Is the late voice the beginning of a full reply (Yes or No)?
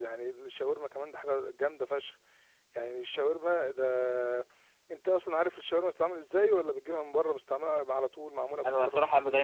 Yes